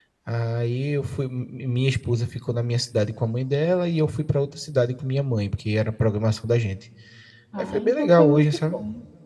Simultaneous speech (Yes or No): Yes